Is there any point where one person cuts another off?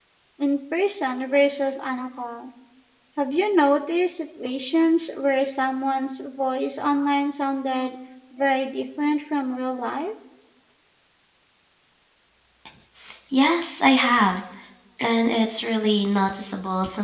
No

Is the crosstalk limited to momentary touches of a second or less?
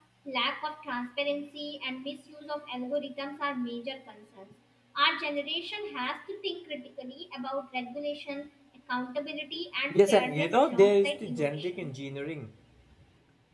No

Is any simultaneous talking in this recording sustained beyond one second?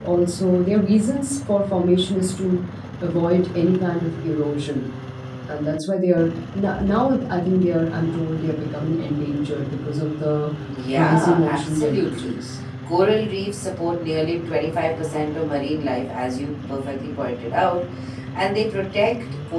Yes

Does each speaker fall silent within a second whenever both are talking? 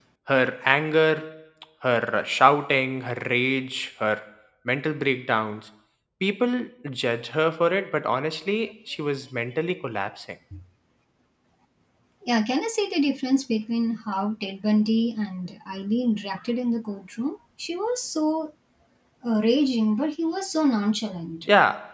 Yes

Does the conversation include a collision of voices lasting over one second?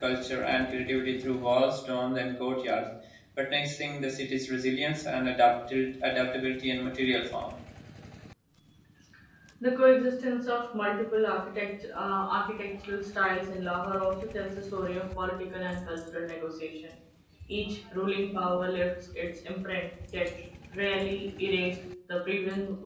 No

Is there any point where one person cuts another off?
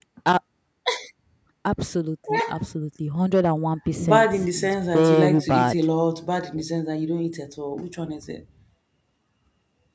Yes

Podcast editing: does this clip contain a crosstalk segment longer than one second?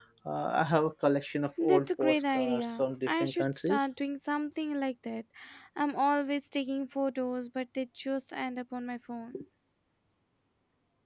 Yes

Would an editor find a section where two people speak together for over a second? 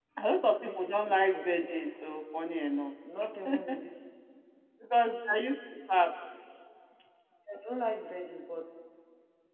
Yes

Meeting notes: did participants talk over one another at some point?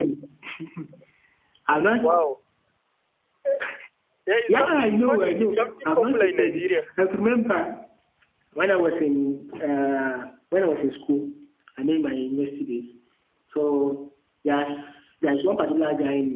Yes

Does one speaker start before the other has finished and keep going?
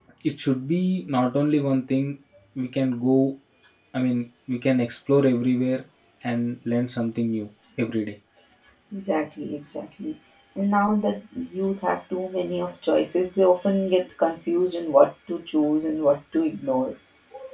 No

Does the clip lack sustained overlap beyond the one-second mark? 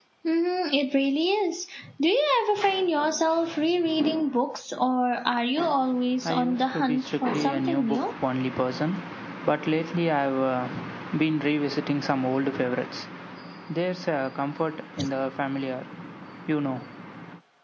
No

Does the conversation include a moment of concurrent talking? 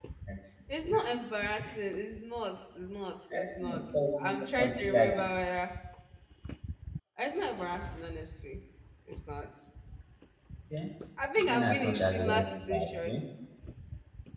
Yes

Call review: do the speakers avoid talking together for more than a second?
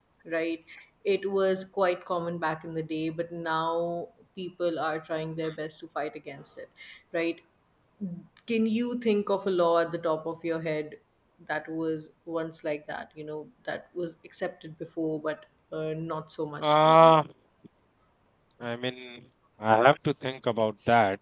Yes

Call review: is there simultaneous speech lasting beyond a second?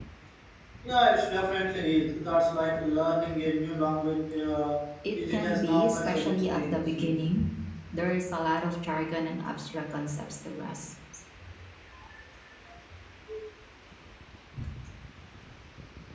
Yes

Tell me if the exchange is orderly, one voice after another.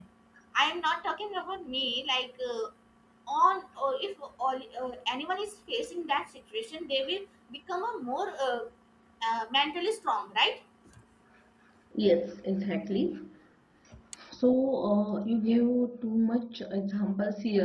Yes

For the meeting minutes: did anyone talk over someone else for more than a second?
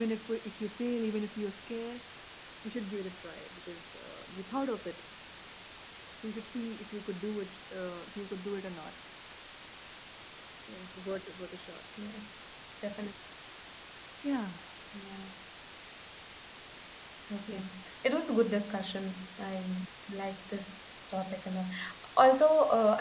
No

